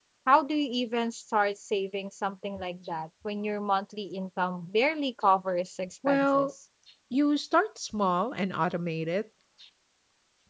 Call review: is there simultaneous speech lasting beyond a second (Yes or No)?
No